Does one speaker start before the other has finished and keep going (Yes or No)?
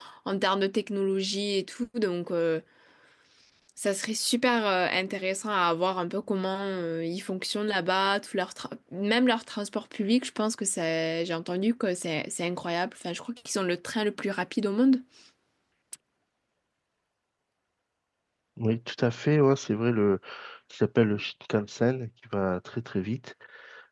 No